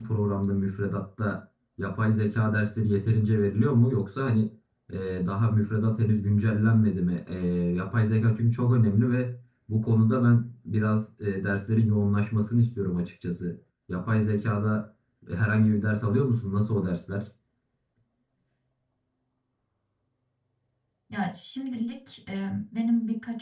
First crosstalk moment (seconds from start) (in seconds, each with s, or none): none